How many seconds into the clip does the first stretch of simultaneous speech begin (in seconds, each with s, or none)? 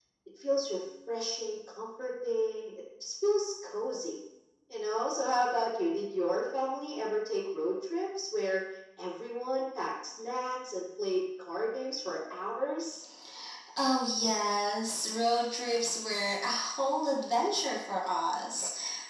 none